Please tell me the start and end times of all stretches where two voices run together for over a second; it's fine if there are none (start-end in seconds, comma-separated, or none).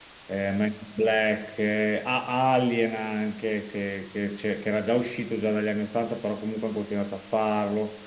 none